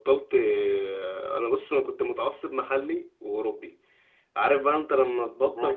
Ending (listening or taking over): listening